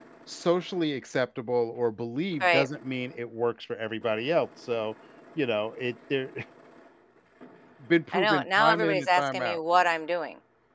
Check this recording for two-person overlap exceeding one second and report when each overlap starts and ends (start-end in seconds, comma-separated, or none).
8.1-9.6